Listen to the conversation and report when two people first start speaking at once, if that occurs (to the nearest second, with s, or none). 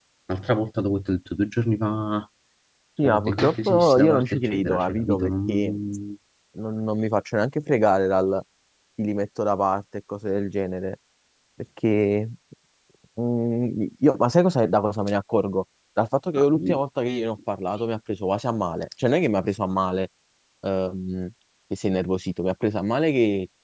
3 s